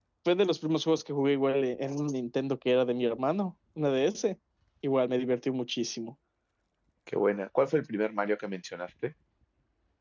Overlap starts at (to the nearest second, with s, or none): none